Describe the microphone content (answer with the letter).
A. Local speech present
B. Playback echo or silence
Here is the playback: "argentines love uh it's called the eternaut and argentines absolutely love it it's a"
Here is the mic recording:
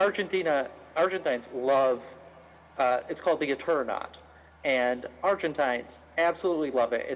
B